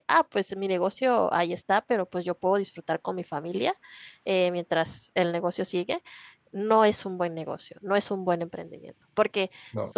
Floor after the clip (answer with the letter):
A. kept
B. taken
A